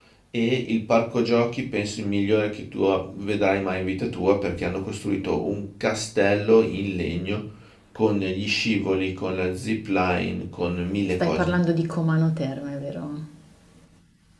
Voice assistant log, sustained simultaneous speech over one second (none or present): none